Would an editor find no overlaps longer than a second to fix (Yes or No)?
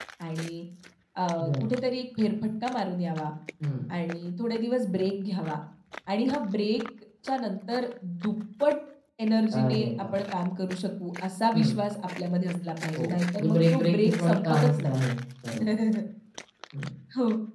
No